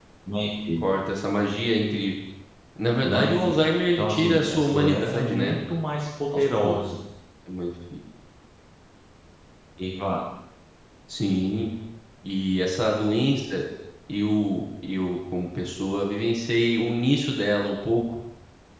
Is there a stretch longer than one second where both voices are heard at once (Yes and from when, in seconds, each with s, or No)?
Yes, from 3.0 s